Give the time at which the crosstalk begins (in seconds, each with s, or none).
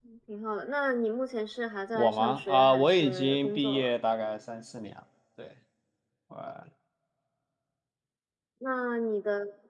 1.9 s